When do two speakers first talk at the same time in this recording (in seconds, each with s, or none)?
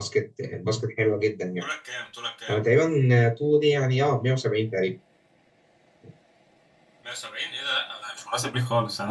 none